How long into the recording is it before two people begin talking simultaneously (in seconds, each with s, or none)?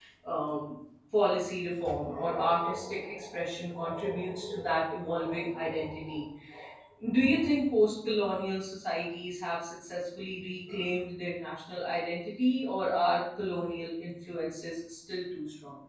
none